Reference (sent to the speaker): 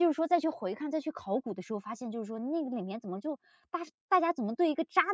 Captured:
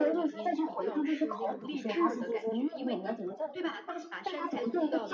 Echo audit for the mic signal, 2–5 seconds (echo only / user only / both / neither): both